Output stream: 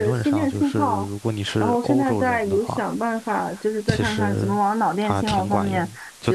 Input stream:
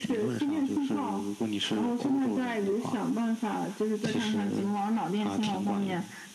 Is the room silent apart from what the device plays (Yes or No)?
Yes